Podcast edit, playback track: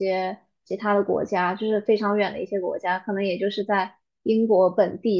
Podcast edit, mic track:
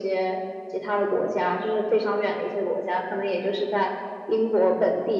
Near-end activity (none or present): none